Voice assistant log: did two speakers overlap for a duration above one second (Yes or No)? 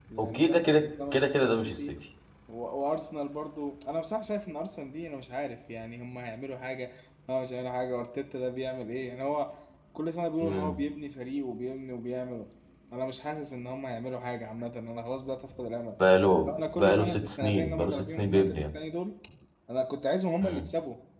Yes